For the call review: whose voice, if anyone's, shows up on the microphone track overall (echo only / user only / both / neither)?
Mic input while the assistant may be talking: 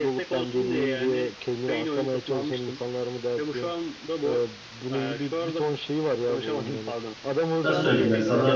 both